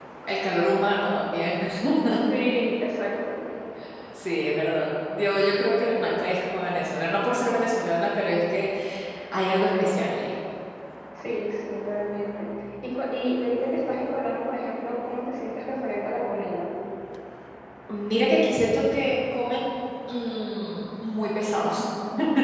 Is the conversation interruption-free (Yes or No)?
Yes